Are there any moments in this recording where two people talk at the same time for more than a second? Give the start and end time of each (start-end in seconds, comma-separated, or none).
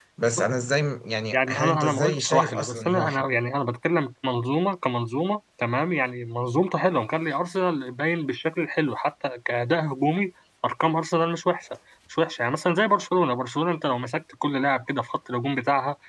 1.3-3.1